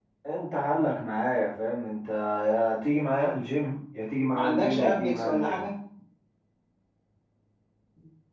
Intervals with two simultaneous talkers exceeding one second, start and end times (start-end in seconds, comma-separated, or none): 4.3-5.6